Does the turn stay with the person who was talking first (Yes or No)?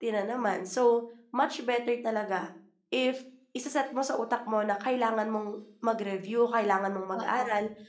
Yes